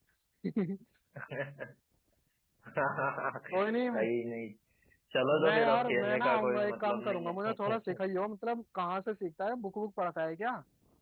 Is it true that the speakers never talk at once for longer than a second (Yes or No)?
No